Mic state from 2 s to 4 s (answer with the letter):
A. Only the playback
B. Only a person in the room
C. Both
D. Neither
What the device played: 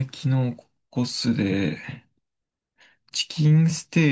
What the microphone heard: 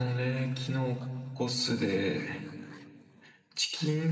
A